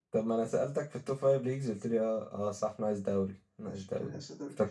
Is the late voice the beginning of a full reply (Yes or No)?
Yes